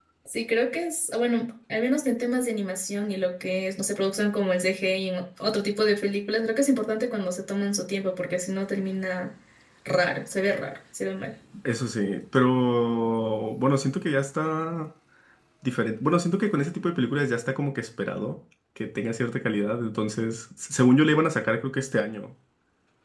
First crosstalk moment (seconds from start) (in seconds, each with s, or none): none